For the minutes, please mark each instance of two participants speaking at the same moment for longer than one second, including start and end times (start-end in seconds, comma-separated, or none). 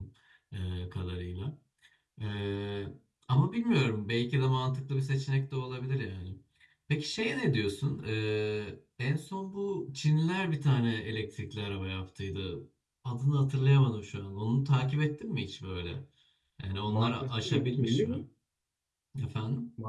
16.9-18.2